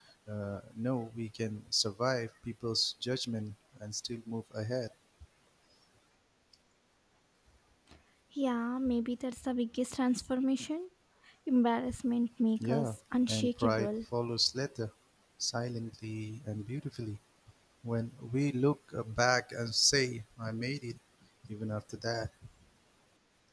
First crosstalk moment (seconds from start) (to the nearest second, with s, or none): 13 s